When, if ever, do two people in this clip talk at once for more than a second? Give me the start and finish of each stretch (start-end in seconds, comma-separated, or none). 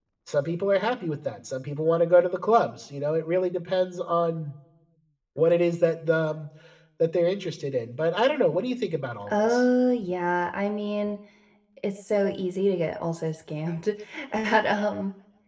none